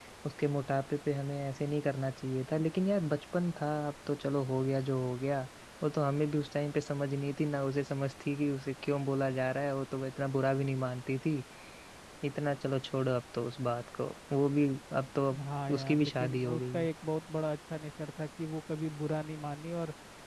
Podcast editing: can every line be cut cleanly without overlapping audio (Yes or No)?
No